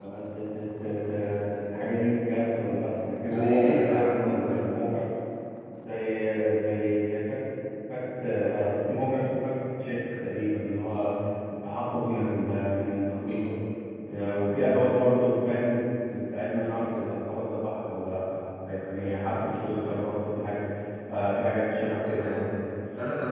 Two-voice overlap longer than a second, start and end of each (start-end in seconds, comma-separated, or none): 3.3-4.8